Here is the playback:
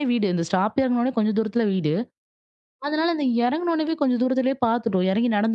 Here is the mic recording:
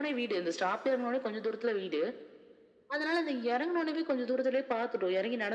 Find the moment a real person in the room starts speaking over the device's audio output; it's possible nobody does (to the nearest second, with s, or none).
none